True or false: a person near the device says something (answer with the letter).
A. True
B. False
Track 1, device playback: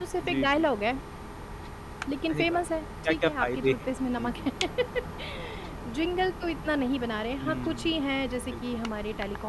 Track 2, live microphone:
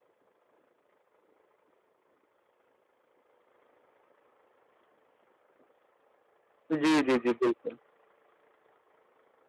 A